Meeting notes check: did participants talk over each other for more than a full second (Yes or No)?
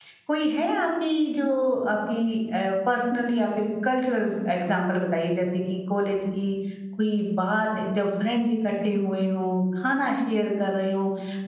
No